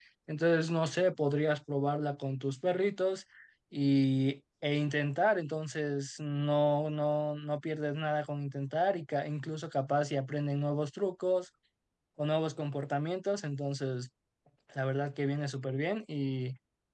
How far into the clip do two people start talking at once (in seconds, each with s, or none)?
none